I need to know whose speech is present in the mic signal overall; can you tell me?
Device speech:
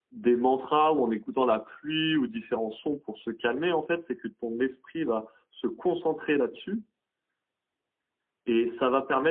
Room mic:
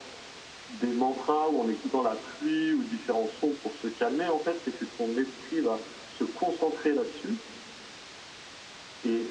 echo only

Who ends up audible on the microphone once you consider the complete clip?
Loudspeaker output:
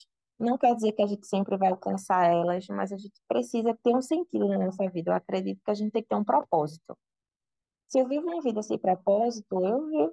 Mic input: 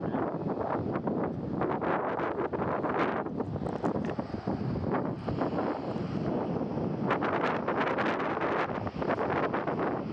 neither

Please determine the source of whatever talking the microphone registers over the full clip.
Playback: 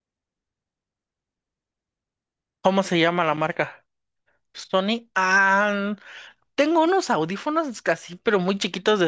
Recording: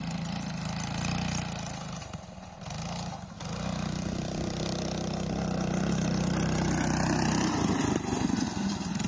neither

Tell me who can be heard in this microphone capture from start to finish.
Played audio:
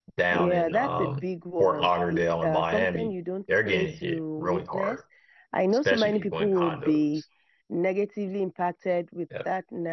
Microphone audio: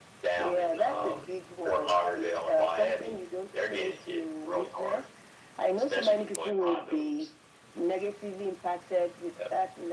echo only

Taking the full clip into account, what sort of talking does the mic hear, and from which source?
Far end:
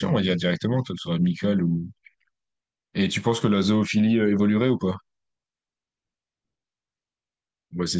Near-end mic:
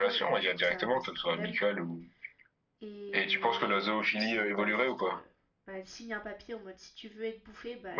both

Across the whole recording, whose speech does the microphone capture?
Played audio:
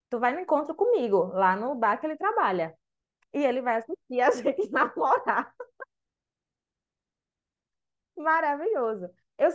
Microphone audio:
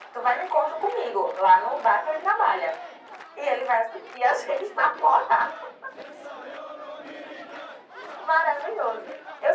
echo only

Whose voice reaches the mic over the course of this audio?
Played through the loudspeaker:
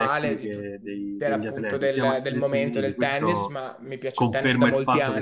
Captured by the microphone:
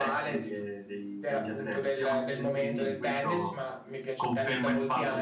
echo only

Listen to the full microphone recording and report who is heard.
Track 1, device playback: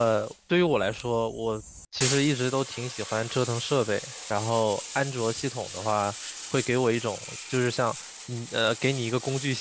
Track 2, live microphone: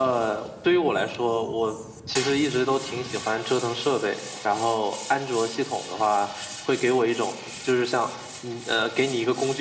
echo only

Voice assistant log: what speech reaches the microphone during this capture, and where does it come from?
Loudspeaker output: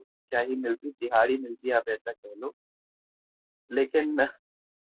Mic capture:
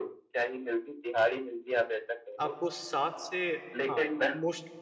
both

